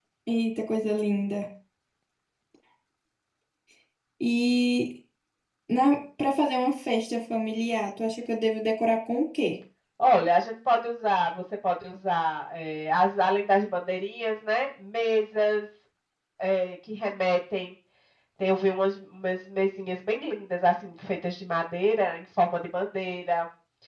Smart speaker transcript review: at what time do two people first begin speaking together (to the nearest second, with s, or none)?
none